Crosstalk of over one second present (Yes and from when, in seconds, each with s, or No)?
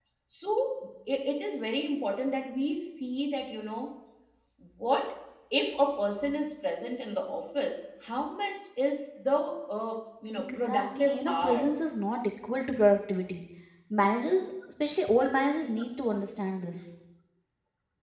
Yes, from 10.4 s